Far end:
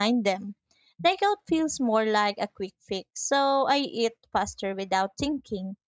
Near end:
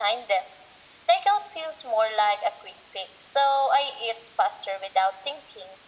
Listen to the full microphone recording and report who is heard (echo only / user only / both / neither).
echo only